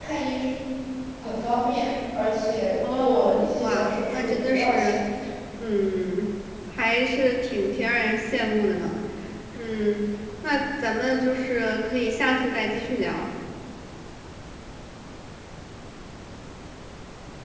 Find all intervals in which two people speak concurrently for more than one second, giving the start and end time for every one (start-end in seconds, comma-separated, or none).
2.9-5.0